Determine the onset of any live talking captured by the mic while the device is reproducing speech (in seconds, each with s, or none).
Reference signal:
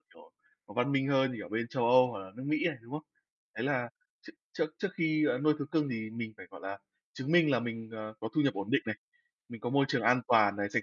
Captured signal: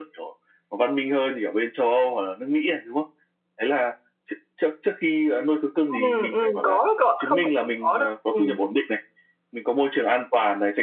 5.9 s